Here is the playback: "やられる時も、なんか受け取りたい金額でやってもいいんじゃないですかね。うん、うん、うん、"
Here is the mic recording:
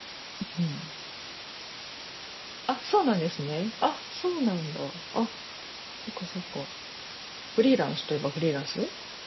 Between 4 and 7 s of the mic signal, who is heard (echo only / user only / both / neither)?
user only